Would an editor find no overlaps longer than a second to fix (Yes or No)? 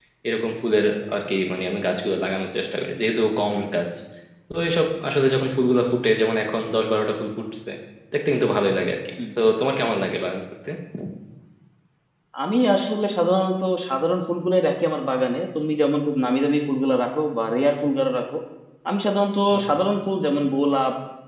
Yes